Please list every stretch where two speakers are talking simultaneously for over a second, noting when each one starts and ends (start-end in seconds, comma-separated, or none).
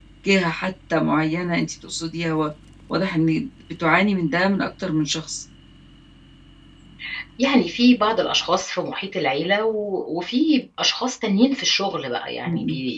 none